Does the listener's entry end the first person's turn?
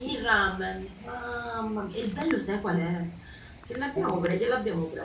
No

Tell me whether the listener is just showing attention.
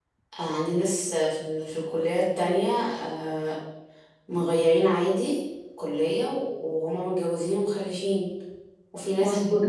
No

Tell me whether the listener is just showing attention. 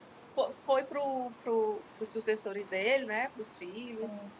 Yes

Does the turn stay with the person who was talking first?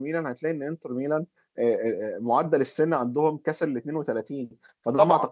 Yes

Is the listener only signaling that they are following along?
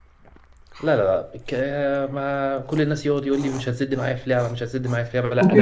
No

